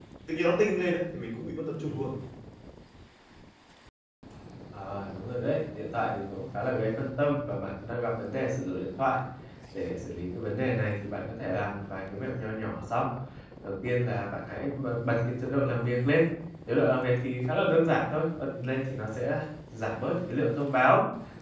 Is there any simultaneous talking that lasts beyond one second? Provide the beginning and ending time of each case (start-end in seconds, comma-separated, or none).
none